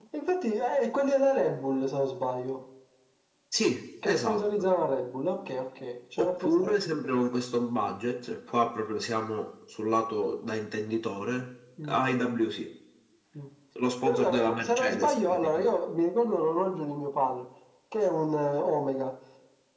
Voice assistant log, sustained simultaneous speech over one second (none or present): present